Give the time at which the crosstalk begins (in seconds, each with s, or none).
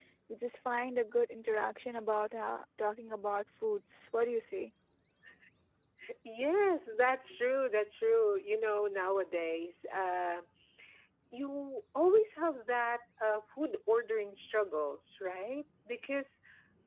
none